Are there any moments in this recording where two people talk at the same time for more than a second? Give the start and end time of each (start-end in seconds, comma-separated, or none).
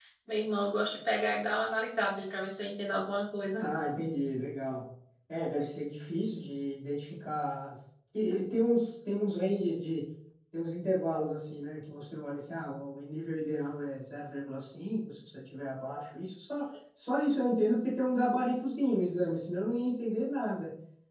none